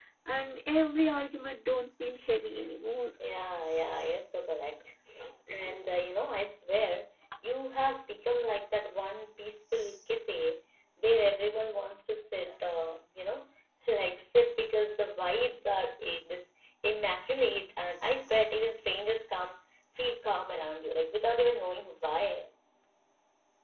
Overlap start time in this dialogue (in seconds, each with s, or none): none